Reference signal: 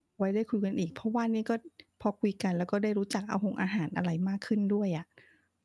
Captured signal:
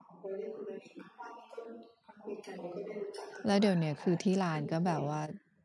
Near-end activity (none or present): present